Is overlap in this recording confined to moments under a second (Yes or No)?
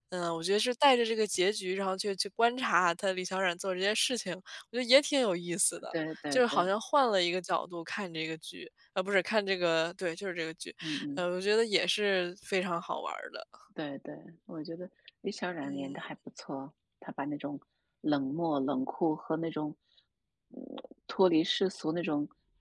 Yes